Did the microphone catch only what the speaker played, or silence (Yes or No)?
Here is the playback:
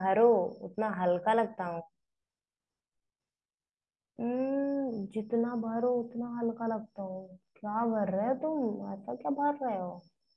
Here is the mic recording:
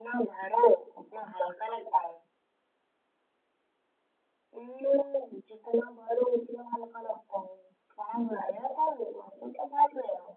Yes